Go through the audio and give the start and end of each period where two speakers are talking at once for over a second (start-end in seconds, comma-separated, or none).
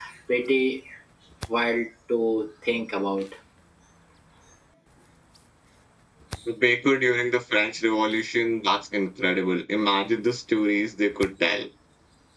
none